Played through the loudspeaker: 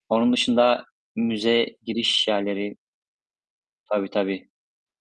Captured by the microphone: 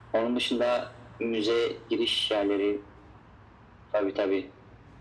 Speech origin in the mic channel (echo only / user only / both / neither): echo only